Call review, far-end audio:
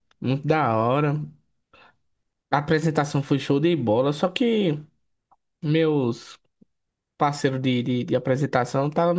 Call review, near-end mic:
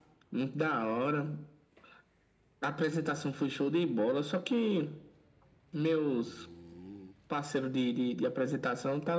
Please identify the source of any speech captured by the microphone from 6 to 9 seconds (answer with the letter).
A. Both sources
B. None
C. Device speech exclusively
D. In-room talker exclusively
C